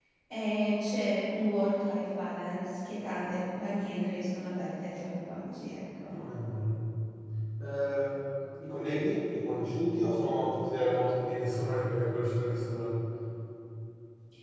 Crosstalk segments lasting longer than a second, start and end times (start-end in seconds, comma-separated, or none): none